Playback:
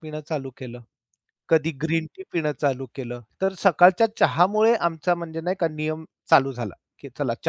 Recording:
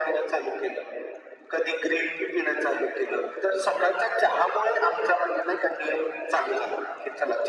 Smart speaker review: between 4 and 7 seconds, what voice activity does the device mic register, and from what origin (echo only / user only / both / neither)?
echo only